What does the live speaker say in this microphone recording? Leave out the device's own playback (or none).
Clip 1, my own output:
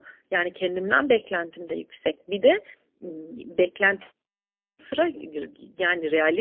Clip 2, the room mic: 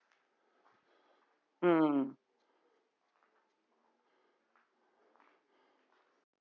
Hımm.